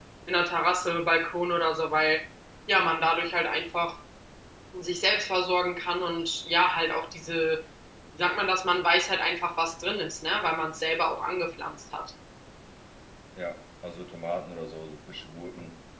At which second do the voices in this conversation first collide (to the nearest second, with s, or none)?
none